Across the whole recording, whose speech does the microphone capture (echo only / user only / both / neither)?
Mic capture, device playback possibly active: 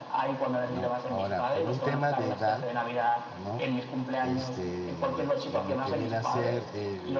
both